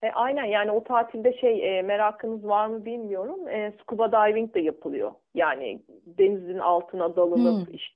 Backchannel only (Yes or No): No